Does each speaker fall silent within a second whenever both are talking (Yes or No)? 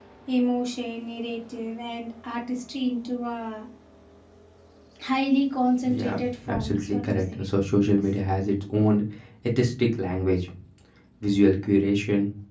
No